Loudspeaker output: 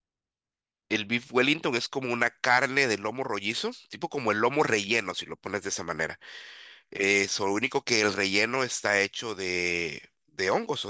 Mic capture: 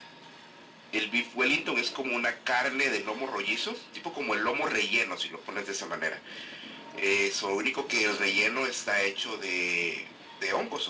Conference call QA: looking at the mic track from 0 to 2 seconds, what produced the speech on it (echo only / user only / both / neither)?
echo only